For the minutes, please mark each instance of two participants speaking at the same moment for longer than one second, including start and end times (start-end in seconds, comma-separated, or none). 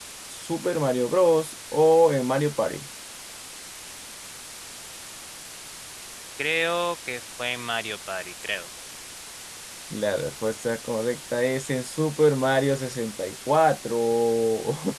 none